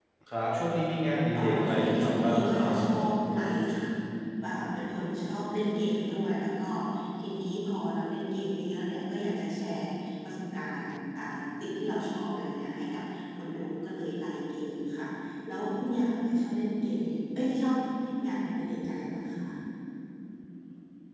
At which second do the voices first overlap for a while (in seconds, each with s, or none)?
1.4 s